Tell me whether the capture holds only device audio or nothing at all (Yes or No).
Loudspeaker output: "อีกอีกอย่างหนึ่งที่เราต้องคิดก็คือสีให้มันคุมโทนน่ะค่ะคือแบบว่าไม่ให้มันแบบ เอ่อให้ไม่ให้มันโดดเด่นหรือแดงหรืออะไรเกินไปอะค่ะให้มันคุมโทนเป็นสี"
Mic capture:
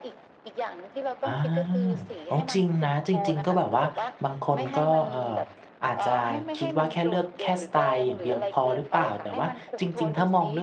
No